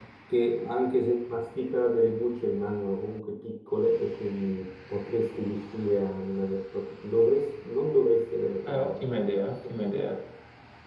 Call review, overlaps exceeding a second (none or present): present